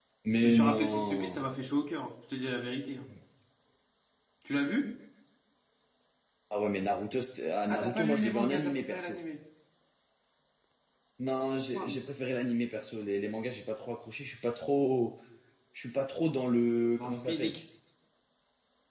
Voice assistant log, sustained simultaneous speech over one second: present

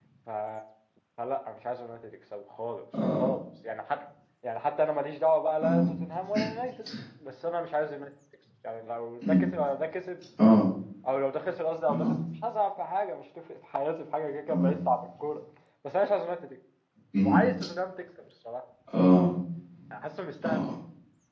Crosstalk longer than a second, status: none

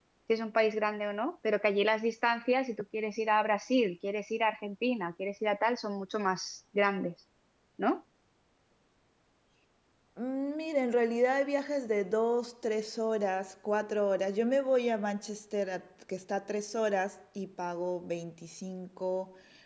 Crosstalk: none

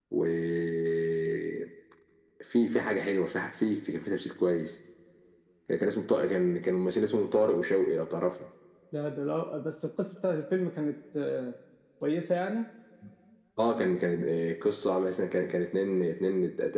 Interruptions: none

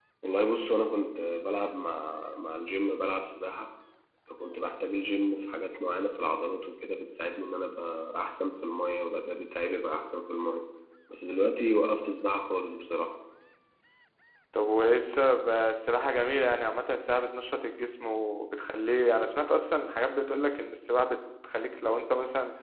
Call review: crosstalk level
none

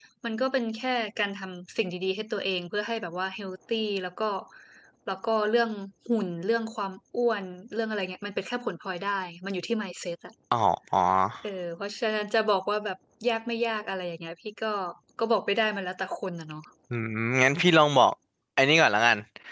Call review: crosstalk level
none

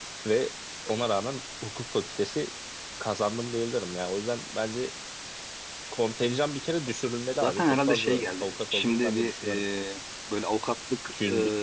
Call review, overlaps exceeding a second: present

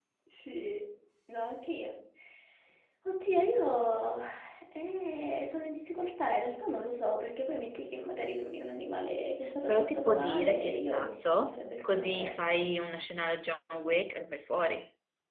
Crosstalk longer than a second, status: present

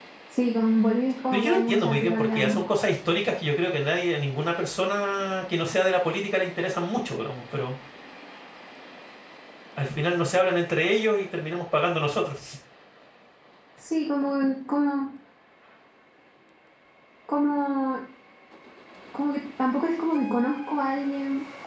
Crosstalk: present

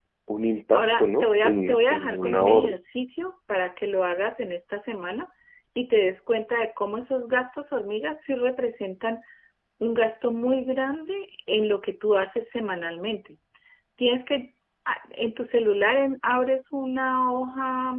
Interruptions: present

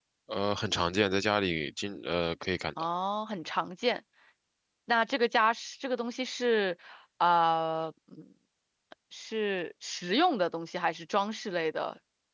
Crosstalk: none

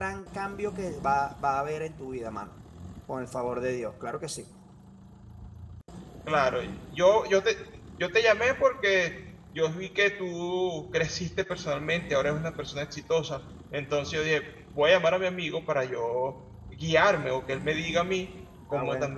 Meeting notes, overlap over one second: none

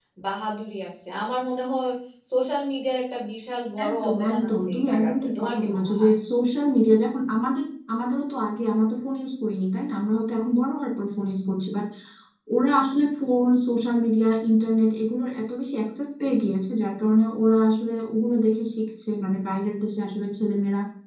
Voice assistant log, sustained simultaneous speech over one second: present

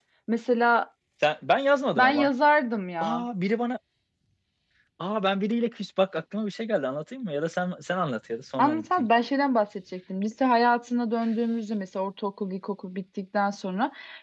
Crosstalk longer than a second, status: none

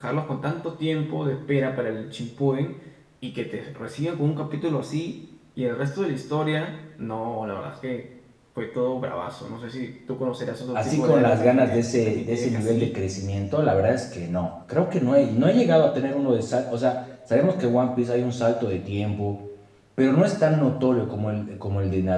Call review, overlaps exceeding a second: present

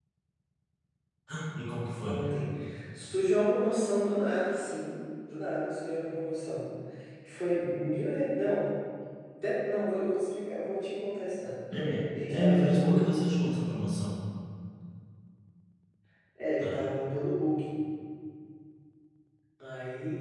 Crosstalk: present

